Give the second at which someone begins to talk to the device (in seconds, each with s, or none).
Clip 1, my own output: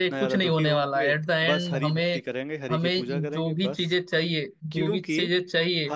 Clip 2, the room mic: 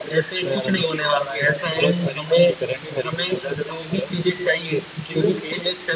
none